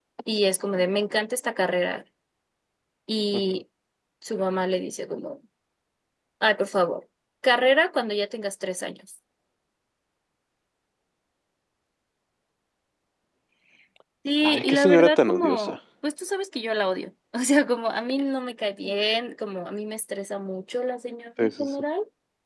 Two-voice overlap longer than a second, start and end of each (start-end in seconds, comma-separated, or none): 14.4-15.8